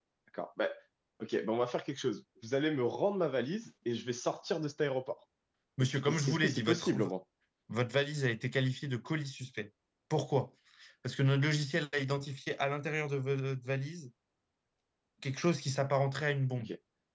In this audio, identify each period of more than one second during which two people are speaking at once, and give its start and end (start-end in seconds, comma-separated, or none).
5.8-7.1